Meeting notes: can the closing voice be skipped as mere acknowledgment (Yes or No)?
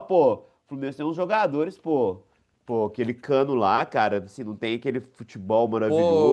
No